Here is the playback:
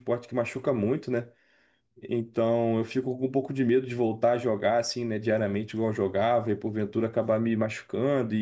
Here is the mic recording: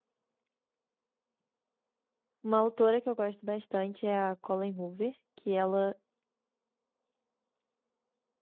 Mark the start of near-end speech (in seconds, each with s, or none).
2.4 s